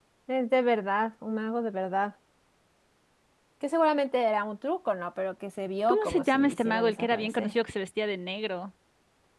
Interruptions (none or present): present